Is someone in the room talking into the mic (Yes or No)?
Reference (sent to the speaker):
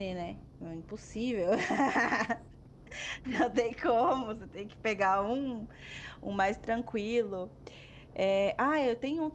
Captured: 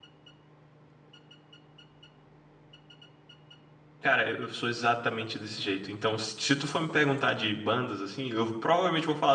Yes